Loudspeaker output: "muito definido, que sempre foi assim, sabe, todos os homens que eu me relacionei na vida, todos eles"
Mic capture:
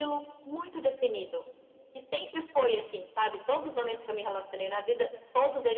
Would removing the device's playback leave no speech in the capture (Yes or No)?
Yes